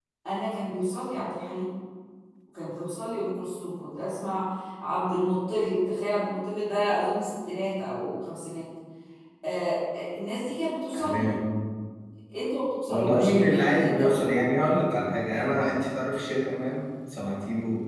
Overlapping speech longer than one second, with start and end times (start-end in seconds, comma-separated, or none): 12.9-14.1